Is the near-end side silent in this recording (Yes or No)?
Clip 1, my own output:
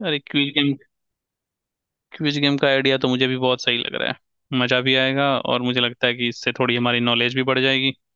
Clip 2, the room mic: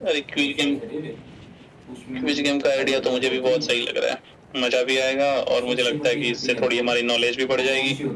No